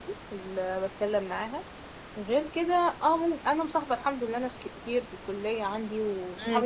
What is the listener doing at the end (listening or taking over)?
taking over